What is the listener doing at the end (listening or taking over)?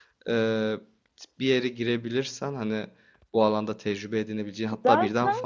listening